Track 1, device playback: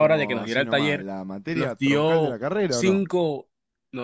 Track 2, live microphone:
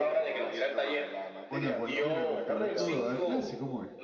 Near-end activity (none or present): present